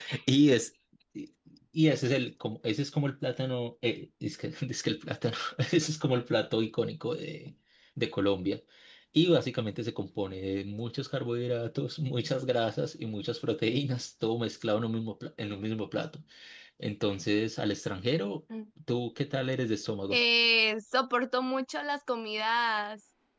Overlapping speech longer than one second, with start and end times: none

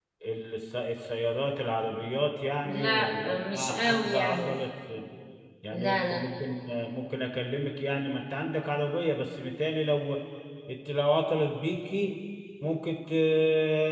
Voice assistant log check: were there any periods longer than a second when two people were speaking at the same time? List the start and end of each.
2.6-4.5

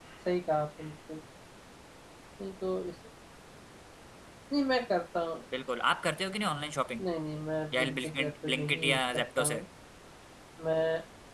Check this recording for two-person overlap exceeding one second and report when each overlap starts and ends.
7.7-9.6

